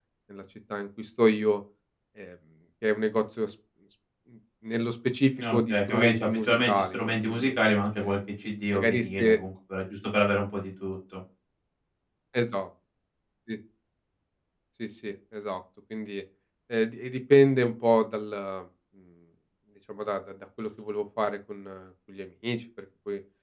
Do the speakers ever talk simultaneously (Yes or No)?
Yes